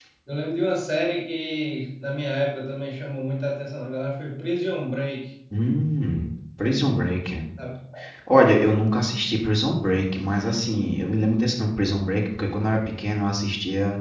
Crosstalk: none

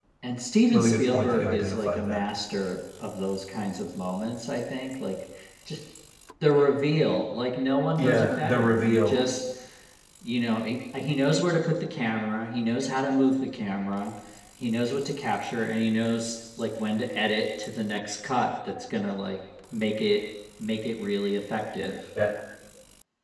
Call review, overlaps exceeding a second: present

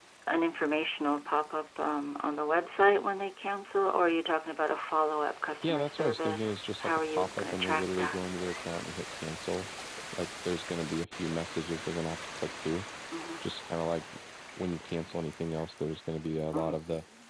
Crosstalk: present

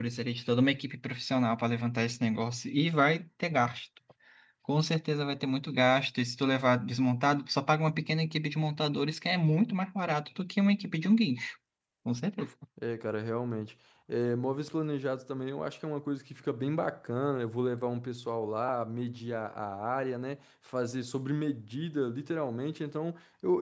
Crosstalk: none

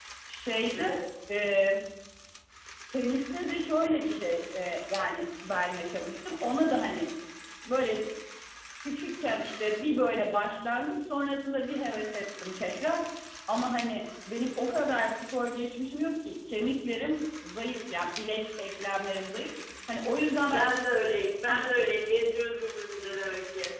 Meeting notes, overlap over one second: none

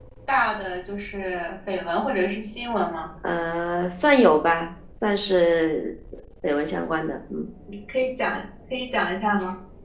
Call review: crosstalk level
none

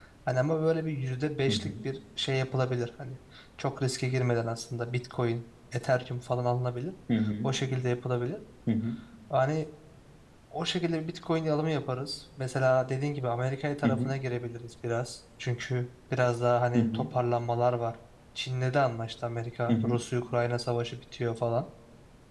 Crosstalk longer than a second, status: none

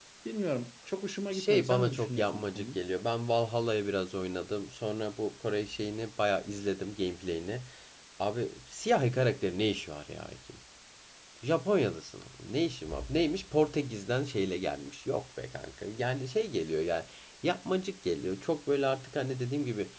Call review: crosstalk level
present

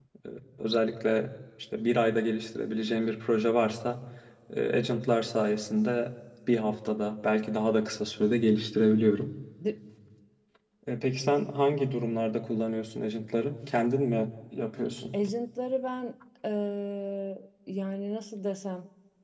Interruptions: none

